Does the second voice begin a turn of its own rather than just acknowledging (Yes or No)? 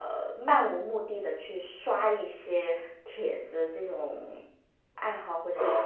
Yes